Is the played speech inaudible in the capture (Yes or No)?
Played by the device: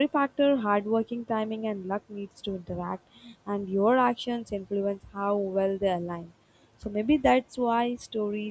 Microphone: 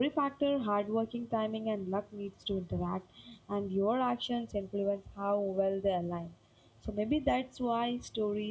No